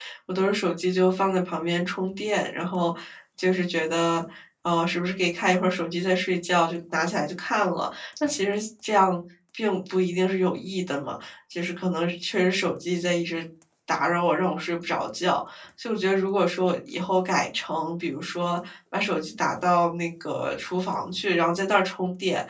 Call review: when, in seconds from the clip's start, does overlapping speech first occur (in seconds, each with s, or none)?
none